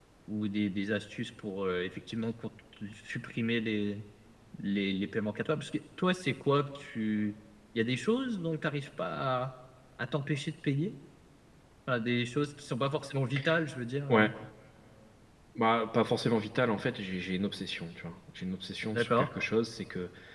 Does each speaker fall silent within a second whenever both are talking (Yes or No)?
Yes